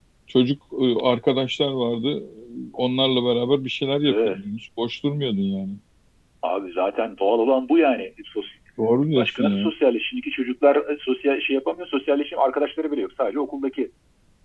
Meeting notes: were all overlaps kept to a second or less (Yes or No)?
Yes